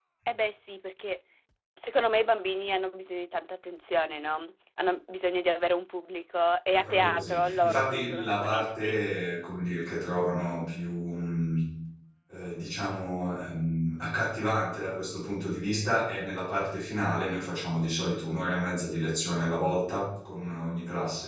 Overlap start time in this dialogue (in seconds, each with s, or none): 6.7 s